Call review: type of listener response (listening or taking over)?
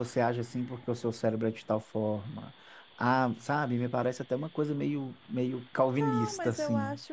taking over